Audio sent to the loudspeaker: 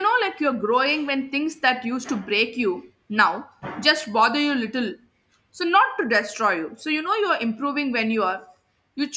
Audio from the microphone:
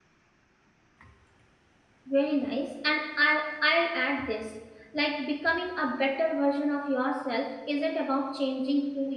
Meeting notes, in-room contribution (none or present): present